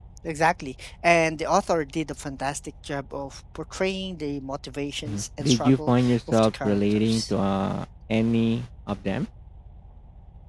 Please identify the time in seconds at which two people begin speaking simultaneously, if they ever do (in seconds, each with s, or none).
5.0 s